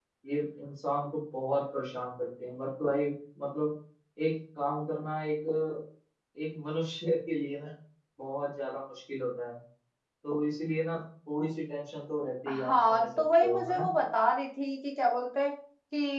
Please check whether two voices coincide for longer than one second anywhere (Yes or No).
Yes